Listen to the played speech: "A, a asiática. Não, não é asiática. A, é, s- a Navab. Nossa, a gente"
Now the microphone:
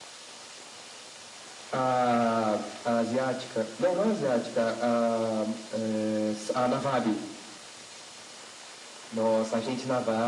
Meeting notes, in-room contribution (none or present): none